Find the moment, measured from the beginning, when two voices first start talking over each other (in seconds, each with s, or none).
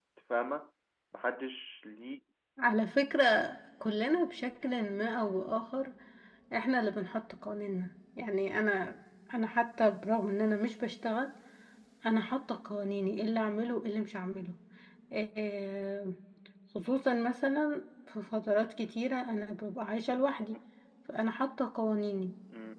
none